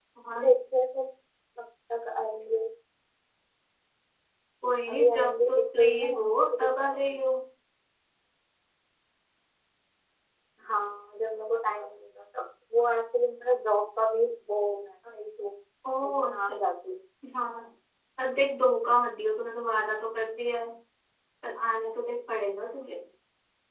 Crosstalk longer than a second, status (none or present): present